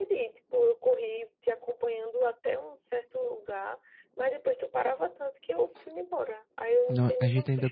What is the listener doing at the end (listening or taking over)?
taking over